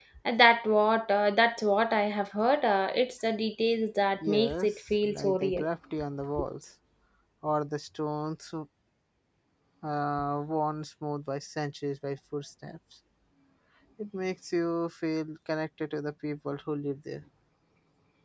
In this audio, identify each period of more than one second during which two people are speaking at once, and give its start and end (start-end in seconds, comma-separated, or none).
4.2-5.7